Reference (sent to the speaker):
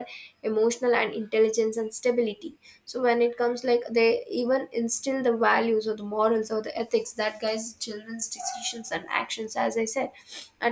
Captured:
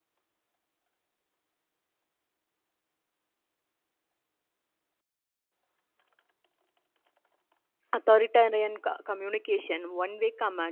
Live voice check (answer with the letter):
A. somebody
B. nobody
A